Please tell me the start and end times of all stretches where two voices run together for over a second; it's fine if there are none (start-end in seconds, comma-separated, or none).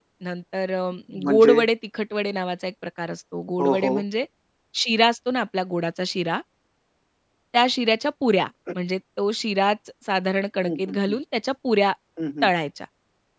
none